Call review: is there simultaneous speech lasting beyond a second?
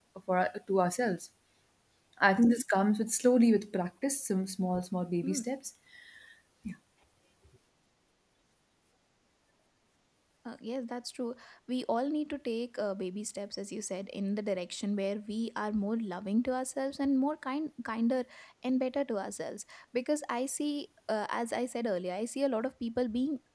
No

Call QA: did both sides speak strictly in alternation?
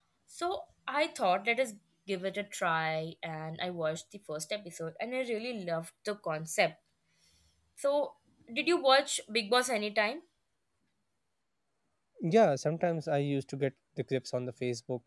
Yes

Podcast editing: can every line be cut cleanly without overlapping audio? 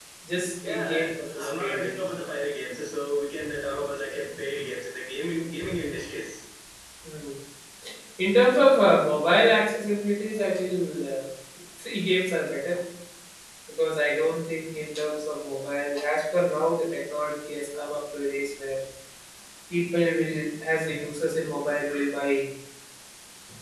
No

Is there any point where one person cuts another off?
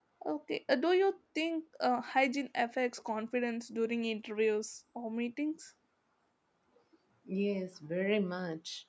No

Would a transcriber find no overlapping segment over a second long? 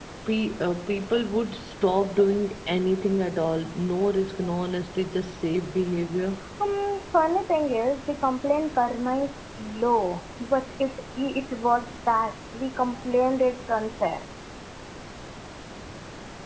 Yes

